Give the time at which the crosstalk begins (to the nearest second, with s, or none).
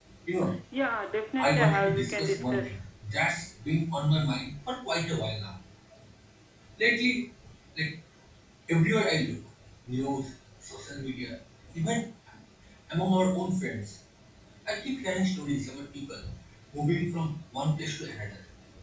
1 s